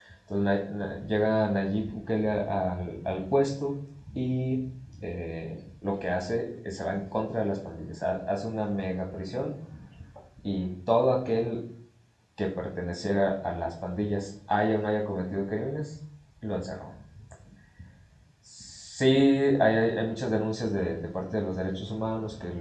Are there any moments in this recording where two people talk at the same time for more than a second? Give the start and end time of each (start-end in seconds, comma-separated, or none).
none